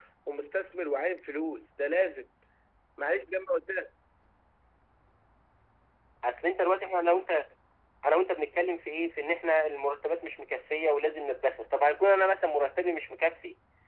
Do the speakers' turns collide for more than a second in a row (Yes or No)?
No